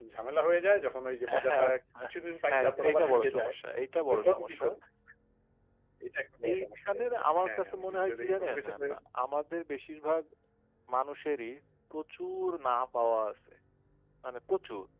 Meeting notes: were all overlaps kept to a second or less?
No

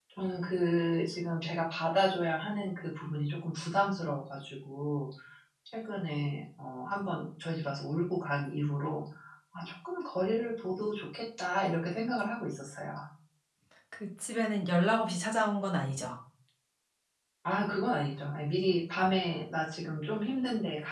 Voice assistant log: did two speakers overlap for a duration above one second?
No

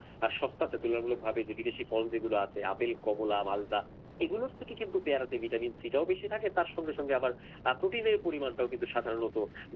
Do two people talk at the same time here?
No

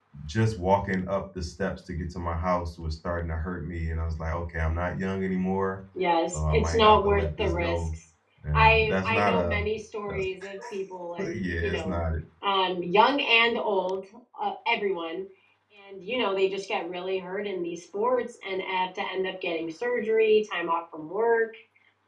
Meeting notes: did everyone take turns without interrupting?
No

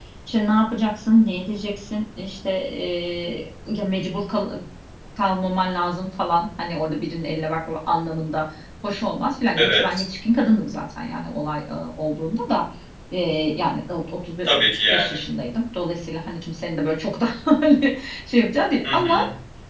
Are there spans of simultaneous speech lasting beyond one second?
No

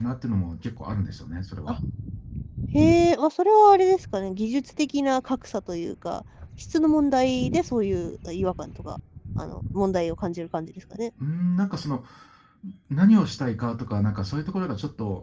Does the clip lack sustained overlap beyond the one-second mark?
Yes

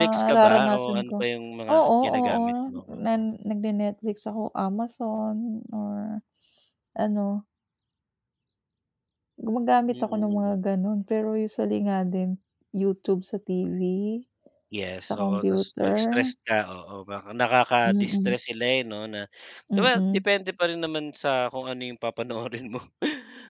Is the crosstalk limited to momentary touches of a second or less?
No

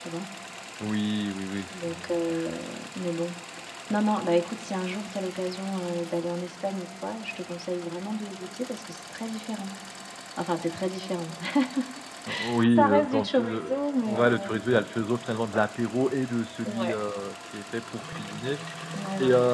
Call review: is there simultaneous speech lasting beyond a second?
Yes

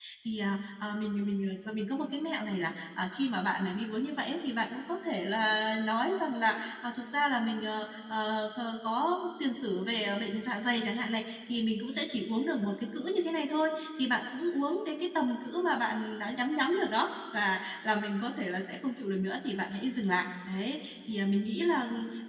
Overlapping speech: No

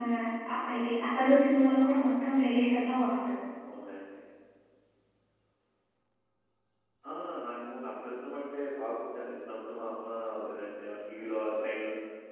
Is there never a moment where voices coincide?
Yes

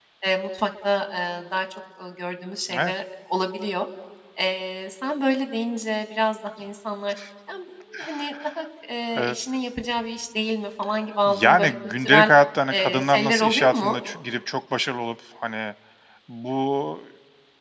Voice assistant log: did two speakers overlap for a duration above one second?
Yes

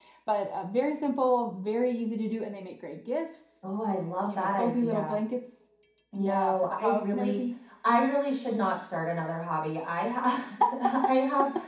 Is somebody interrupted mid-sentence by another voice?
Yes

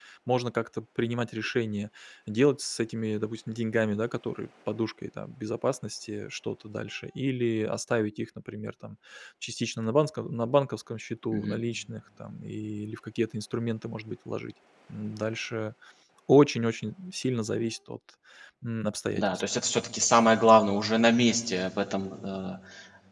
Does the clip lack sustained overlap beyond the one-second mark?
Yes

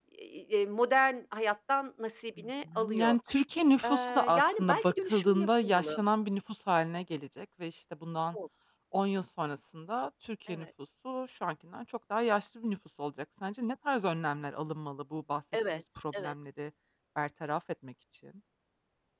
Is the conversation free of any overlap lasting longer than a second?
No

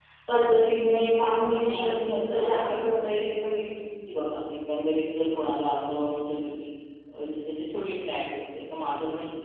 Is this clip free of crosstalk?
No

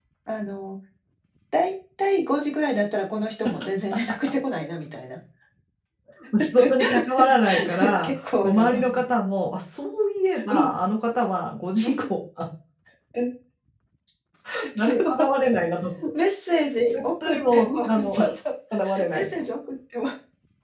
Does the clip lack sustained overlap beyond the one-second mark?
No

